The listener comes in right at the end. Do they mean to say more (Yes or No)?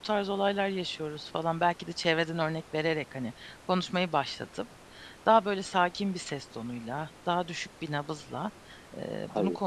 No